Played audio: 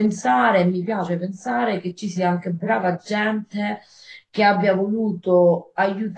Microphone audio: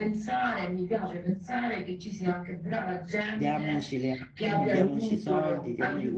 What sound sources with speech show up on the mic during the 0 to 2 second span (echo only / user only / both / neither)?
echo only